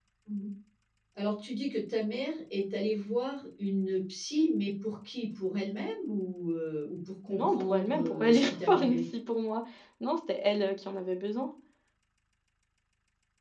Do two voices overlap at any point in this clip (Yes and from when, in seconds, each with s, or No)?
Yes, from 7.3 s